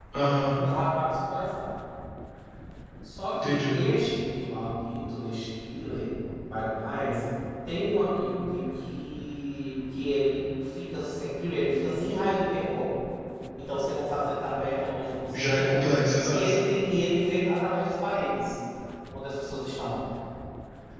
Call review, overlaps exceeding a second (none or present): none